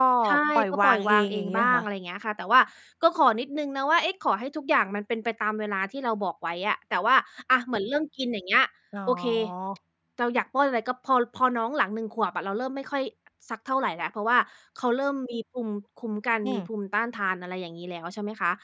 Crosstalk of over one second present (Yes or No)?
Yes